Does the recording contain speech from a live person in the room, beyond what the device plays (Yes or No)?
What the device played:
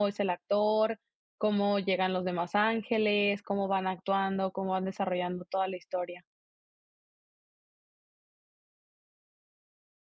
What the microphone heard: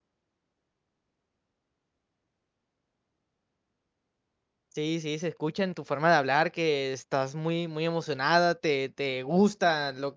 Yes